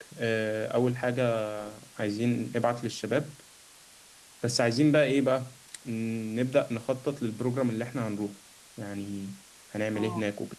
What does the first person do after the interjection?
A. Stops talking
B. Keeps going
A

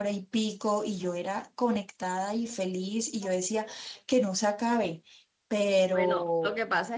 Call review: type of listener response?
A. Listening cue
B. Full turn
B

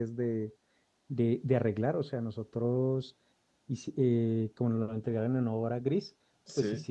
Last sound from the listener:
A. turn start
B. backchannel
B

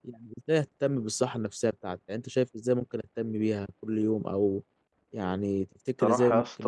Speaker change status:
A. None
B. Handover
B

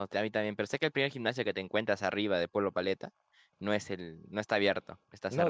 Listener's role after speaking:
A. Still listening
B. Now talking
B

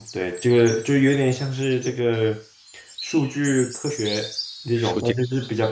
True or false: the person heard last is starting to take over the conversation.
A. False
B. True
A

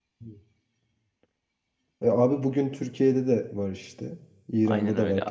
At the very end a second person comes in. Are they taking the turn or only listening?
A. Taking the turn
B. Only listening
A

